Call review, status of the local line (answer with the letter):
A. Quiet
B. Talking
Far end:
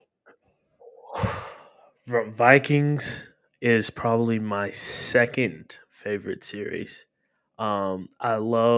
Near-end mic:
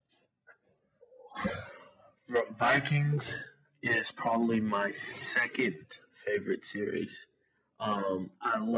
B